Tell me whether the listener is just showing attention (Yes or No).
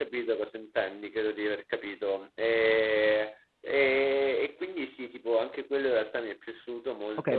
No